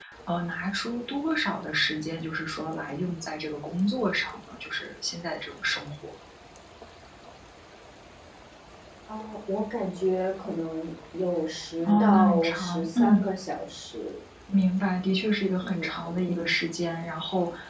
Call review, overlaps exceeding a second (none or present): present